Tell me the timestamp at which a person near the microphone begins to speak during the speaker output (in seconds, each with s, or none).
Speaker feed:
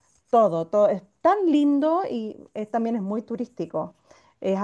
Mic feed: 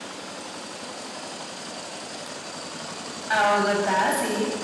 3.3 s